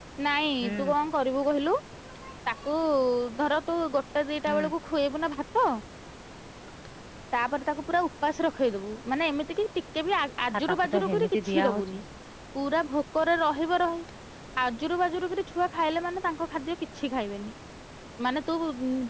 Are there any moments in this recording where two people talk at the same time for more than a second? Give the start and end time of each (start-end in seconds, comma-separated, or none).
10.7-12.0